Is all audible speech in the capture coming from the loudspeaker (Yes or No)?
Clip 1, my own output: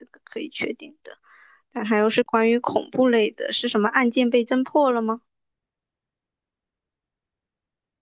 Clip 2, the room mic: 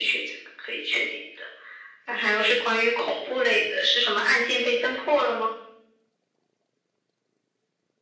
Yes